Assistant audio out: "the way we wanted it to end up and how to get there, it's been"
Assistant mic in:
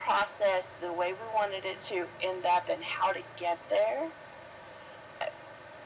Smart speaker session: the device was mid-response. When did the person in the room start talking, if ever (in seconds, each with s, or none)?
none